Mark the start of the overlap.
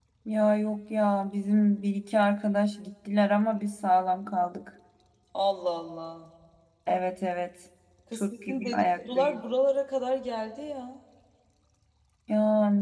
8.1 s

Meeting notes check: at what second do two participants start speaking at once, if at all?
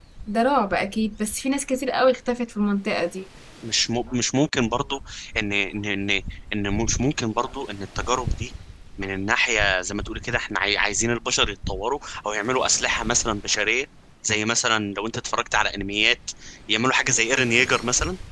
none

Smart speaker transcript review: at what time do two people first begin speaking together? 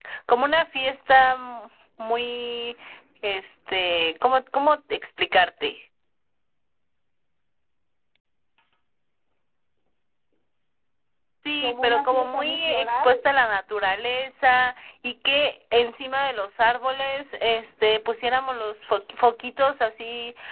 11.6 s

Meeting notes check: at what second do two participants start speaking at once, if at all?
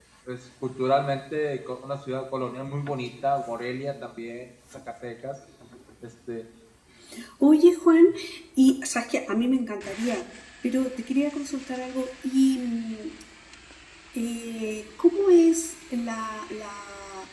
none

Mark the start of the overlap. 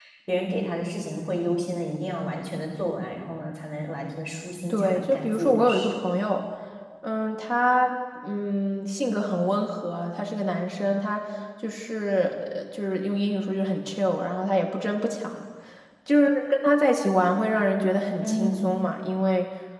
4.7 s

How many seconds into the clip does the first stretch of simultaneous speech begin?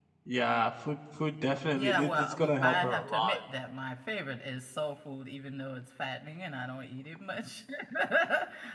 1.7 s

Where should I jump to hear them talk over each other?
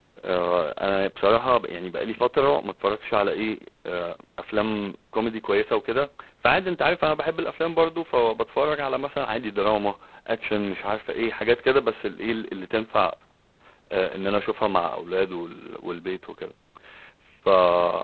none

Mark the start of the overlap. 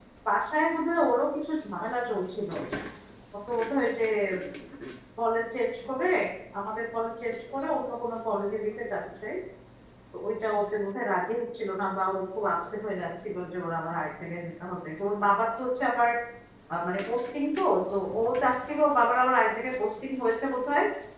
none

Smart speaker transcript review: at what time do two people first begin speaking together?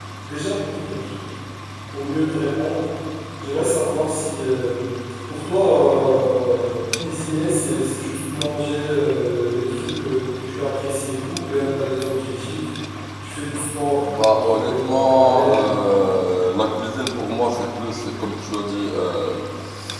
14.0 s

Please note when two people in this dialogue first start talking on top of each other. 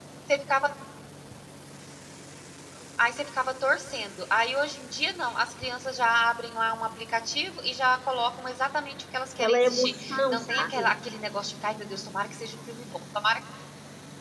9.4 s

